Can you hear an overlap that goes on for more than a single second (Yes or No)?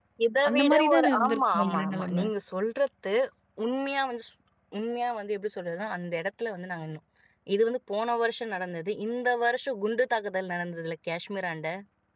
Yes